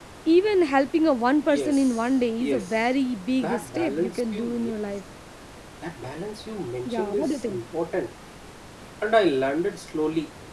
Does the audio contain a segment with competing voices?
Yes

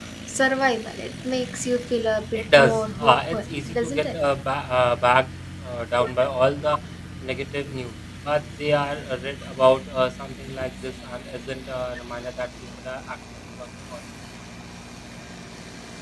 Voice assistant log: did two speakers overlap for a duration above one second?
Yes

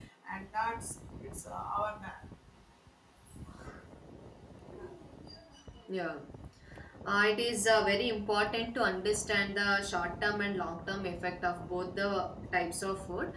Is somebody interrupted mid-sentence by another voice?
No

